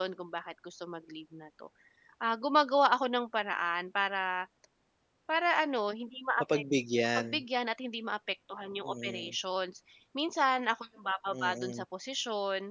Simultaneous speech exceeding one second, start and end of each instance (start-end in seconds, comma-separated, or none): none